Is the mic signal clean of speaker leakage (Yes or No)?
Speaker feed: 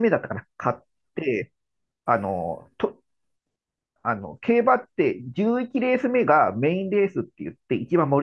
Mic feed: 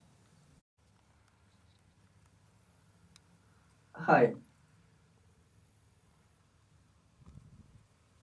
Yes